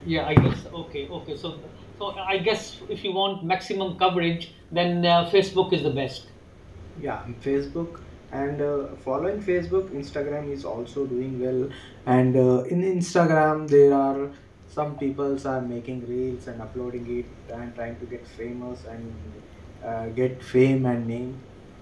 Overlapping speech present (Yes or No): No